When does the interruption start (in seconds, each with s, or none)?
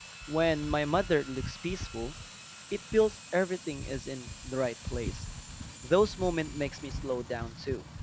none